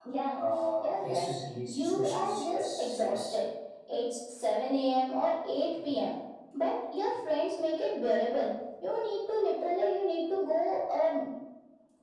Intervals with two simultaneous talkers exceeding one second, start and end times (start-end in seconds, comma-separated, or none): 1.7-3.4